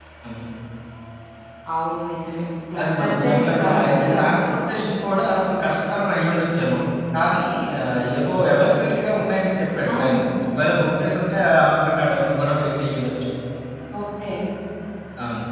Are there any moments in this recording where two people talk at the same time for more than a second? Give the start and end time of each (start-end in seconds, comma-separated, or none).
2.8-4.4